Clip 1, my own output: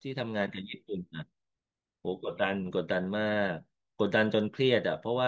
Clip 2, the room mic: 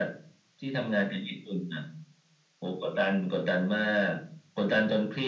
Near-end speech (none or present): none